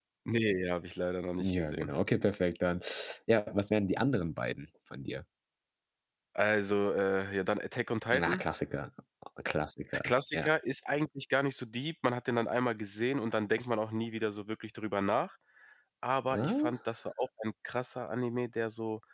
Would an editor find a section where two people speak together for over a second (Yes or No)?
No